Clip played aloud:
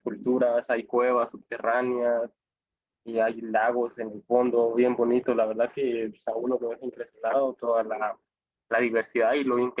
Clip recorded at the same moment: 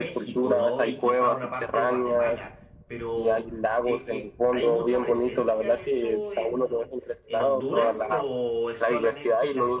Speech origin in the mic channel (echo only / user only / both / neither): both